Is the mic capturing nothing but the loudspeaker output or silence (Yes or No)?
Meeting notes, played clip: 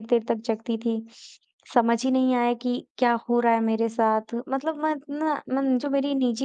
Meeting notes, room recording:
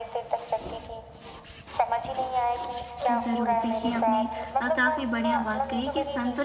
No